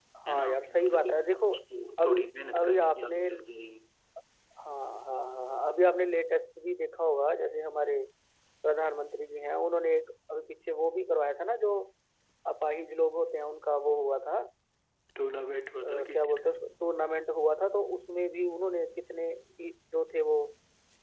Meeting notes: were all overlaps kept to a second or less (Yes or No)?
No